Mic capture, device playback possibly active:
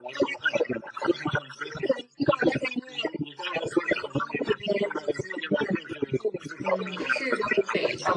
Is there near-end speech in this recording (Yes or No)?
Yes